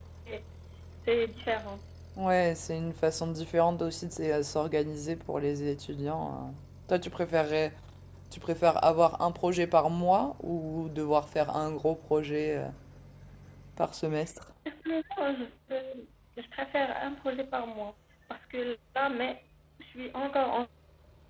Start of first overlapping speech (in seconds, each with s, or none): none